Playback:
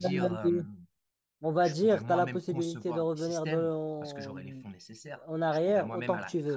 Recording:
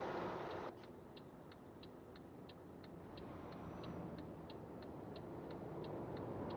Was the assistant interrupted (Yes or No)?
No